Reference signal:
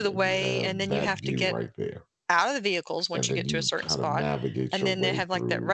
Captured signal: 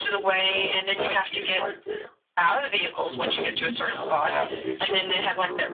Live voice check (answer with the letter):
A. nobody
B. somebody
B